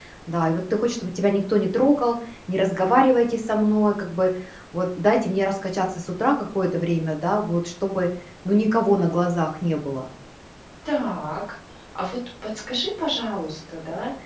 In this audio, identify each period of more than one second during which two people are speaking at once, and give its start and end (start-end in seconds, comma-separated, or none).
none